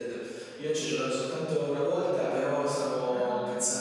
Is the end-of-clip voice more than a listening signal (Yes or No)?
No